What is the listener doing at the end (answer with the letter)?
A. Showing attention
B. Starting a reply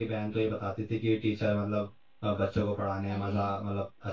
A